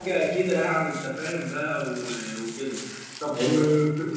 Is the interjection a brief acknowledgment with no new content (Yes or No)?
Yes